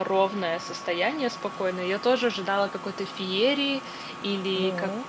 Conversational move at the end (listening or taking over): listening